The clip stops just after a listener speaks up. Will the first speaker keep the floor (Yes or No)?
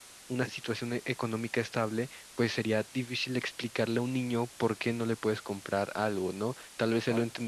Yes